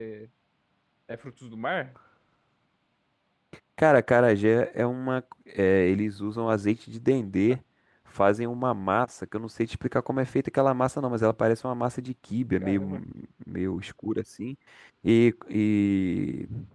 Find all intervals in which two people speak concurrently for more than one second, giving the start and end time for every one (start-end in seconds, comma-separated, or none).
none